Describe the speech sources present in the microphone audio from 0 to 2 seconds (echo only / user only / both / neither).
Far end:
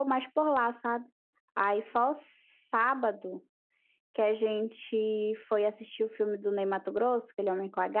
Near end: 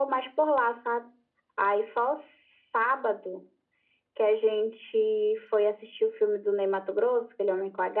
echo only